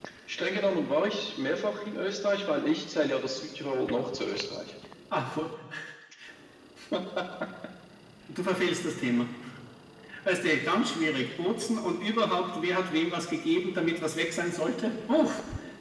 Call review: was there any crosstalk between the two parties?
No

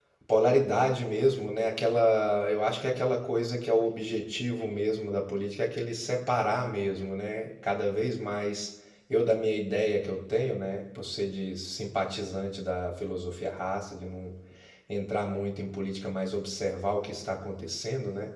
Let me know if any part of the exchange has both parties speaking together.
No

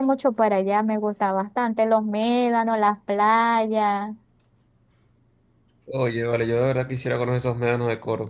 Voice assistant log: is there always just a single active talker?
Yes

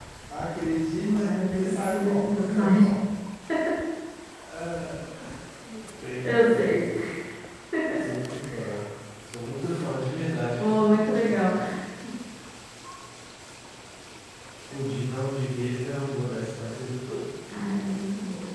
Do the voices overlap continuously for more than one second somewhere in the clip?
Yes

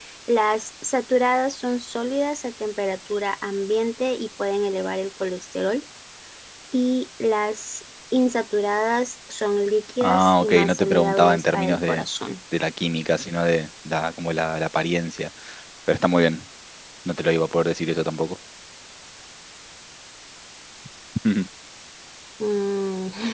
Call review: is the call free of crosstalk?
No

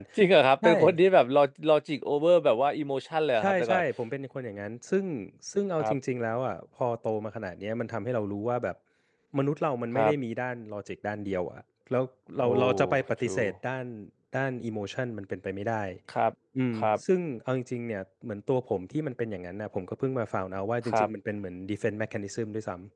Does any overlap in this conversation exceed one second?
No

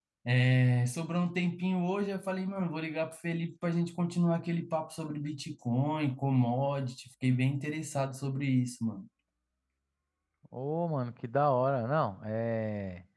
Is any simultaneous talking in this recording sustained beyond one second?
No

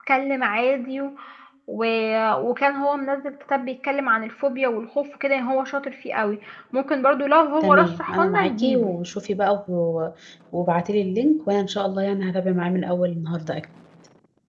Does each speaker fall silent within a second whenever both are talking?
No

